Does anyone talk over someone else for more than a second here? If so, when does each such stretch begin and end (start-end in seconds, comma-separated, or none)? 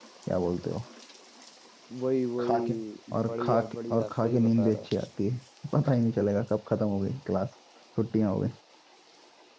3.3-4.9